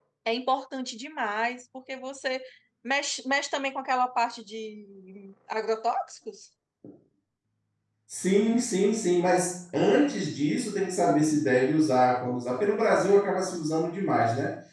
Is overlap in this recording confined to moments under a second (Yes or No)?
Yes